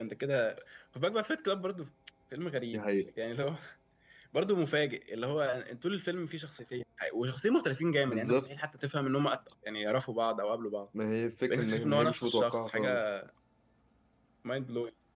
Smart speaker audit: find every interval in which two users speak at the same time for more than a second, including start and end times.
11.5-13.0

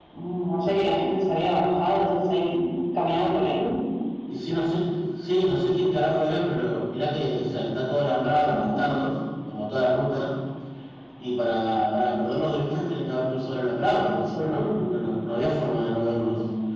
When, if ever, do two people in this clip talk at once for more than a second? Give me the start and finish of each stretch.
none

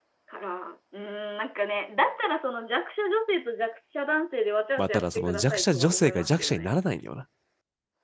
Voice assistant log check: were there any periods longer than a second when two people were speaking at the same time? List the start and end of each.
4.8-6.7

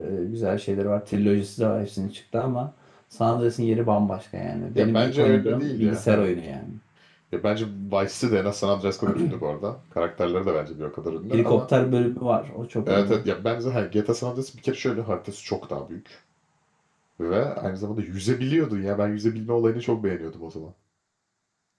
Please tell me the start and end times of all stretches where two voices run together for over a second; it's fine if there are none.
4.8-6.3

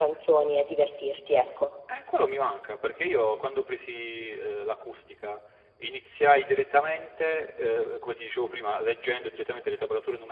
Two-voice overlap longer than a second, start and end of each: none

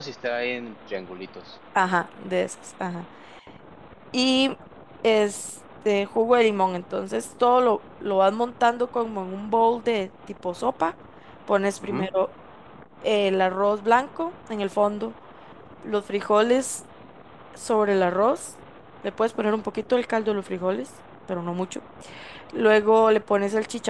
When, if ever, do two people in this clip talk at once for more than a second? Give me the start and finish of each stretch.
none

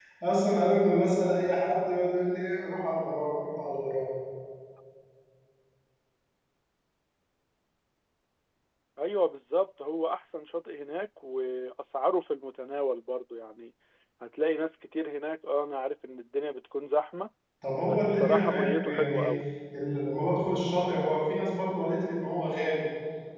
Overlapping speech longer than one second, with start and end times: 17.9-19.3

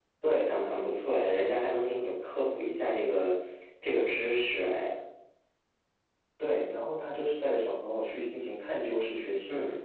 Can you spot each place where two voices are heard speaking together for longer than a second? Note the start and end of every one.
none

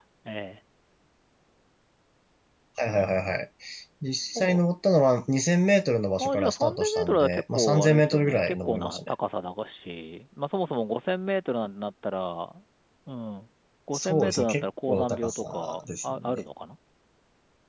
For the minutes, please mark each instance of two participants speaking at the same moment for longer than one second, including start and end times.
6.2-9.1, 13.9-16.4

